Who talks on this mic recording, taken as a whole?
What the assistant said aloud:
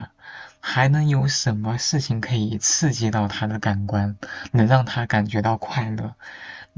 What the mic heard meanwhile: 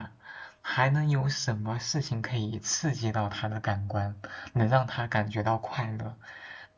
echo only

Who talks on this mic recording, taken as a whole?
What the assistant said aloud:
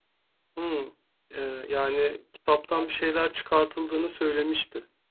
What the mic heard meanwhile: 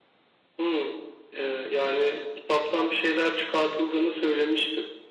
echo only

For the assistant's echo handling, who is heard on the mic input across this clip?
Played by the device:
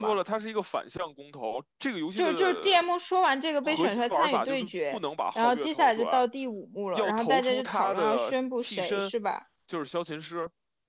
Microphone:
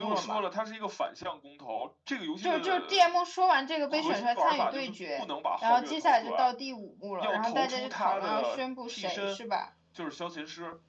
echo only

